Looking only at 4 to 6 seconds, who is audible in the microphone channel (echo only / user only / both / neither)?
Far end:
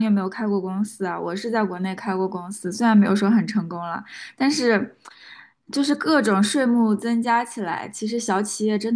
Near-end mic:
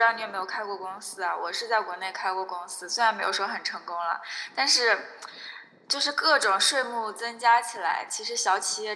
echo only